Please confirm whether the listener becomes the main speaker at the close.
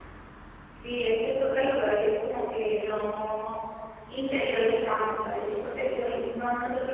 No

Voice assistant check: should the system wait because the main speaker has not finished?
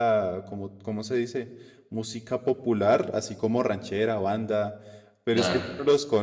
Yes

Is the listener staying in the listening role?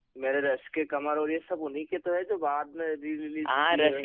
No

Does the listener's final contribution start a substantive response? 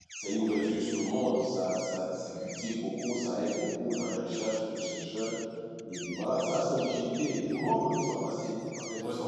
Yes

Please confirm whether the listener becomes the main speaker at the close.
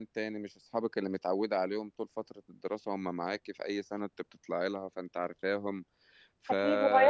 Yes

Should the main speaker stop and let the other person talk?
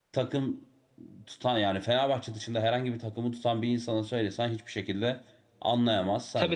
Yes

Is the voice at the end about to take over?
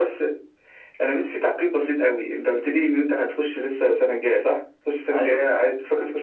No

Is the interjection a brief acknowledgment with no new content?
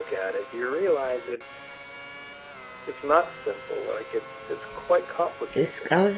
No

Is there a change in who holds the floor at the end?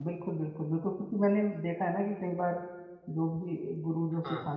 No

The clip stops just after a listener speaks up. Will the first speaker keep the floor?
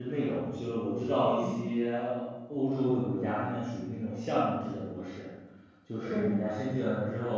Yes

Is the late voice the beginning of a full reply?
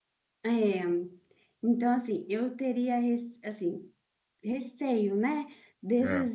No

